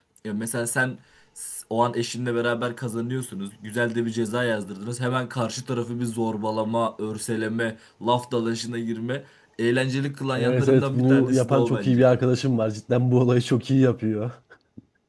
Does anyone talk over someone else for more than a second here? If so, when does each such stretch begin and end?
10.4-12.1

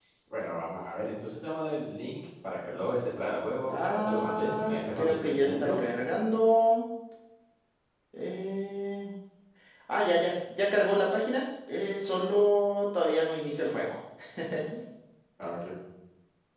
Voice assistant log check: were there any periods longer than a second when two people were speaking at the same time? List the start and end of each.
3.7-5.8

